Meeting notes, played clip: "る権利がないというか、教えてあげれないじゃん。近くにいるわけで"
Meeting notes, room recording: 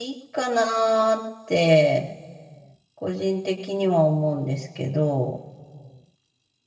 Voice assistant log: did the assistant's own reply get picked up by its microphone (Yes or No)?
No